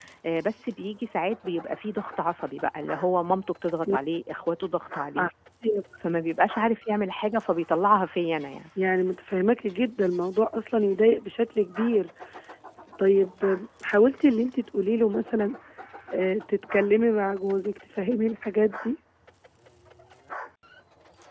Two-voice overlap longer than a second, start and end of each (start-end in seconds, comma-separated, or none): none